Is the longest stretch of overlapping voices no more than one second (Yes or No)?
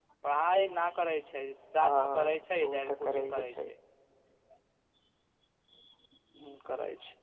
No